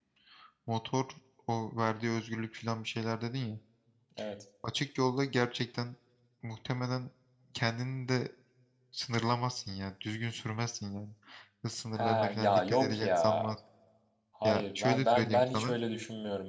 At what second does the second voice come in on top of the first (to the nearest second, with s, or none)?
12 s